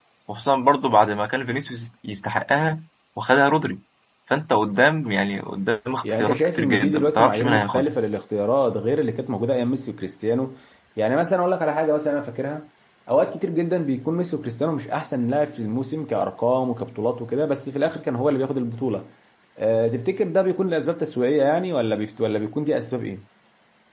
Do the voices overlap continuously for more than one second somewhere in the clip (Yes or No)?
Yes